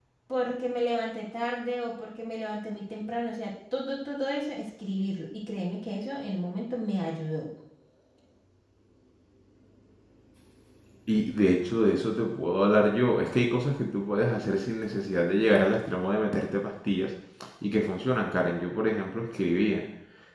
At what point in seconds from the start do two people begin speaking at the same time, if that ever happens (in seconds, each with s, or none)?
none